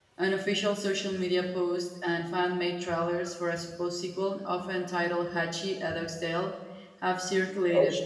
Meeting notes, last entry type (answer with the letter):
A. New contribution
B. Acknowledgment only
B